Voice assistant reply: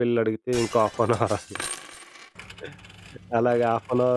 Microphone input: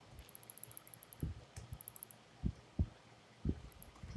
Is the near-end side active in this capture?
No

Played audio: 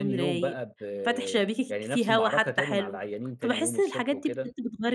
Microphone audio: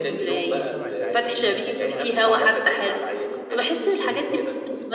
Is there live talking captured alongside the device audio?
Yes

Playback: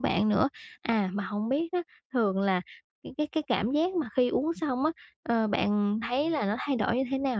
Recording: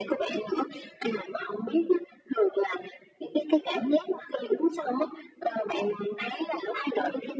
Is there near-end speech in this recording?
No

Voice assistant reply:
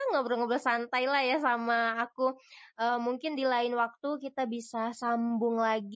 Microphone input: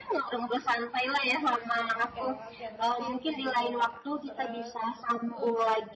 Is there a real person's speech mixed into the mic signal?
Yes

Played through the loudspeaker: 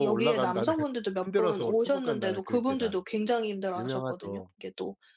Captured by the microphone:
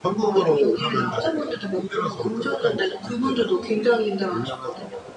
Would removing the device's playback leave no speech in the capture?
Yes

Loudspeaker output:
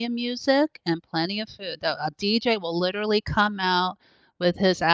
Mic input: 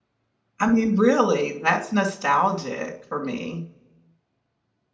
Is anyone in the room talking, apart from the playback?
Yes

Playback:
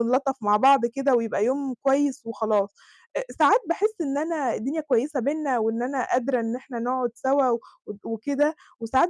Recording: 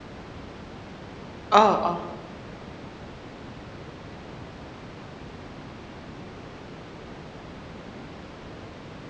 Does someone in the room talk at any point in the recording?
Yes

